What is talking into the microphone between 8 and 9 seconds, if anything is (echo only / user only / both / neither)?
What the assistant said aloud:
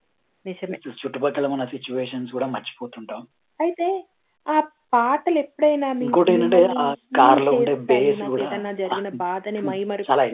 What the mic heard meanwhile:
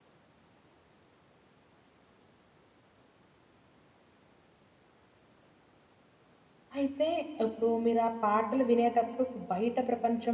user only